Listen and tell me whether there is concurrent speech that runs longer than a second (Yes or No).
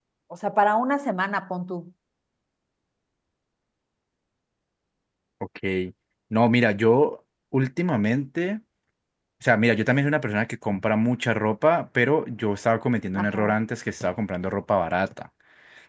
No